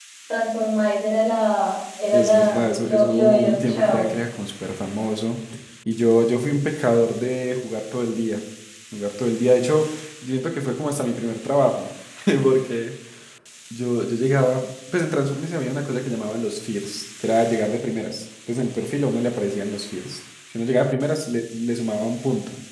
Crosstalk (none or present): present